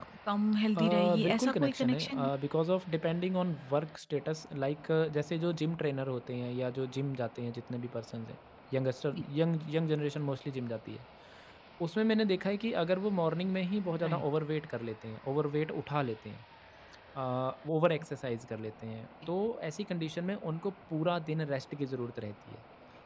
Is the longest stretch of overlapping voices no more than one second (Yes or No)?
No